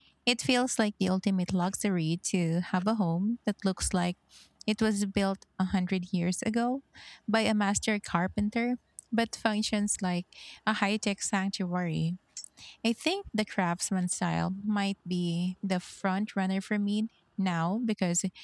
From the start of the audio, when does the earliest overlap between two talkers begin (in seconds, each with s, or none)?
none